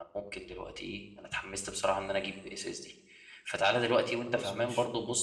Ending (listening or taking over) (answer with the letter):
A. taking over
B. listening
B